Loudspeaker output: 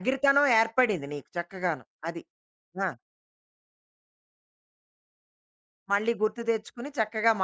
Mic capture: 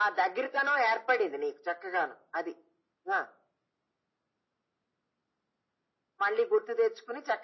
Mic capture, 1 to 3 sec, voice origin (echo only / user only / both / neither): echo only